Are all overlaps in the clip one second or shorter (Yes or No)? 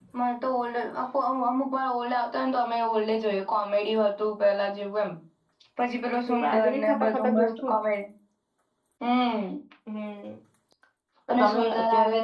No